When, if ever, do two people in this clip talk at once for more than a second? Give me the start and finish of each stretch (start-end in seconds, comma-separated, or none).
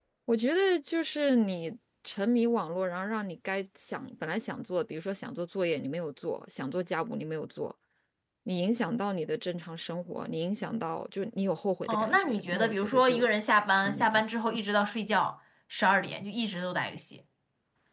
11.9-13.3